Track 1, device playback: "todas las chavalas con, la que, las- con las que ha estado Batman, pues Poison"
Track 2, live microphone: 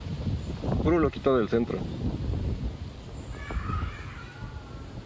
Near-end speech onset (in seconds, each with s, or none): 0.8 s